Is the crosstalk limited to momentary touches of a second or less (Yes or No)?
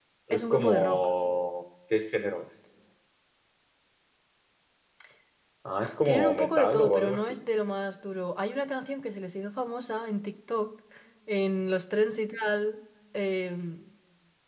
No